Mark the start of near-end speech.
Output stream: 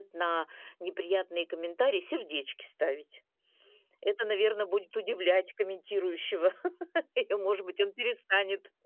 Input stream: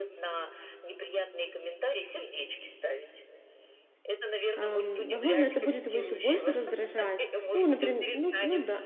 4.5 s

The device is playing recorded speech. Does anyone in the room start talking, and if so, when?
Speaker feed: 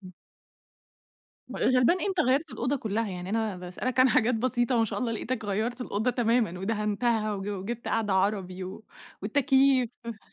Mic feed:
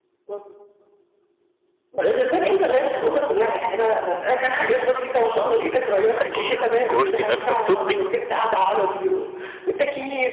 6.2 s

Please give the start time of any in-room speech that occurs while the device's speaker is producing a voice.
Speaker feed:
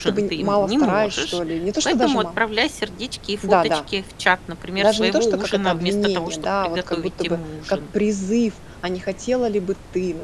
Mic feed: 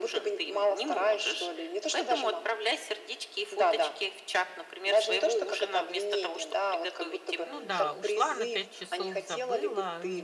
7.5 s

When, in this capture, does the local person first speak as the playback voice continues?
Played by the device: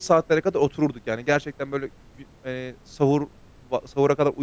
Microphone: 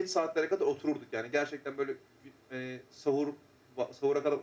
none

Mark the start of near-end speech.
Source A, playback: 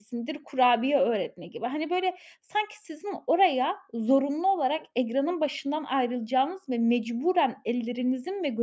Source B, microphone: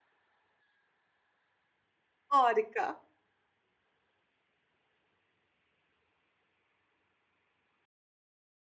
2.3 s

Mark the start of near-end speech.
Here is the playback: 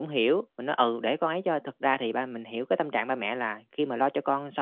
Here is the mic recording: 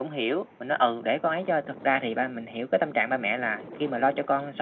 none

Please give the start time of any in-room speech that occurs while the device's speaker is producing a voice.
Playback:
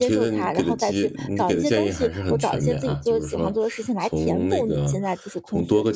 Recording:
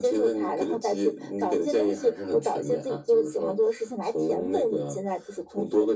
none

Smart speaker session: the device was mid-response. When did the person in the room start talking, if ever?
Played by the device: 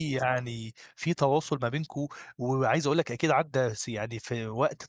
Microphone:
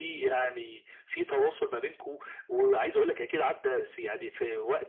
none

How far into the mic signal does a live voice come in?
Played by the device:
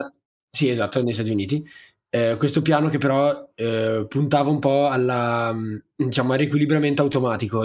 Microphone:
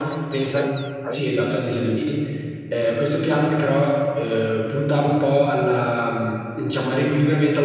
0.5 s

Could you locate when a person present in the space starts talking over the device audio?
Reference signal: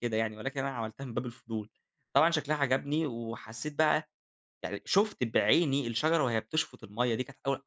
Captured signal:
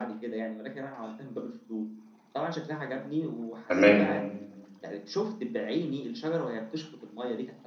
3.7 s

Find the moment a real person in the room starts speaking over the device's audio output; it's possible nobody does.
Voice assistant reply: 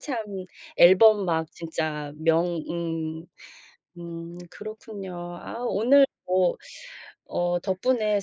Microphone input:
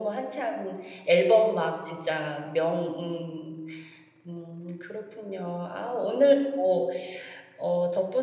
none

